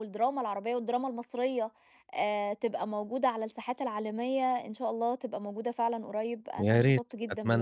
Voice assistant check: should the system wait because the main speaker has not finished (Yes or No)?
No